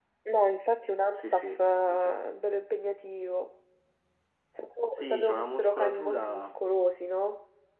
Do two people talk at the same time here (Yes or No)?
Yes